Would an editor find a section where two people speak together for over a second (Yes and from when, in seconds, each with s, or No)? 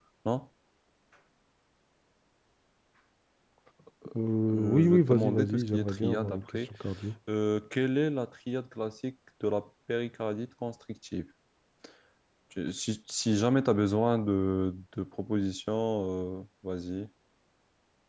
Yes, from 4.5 s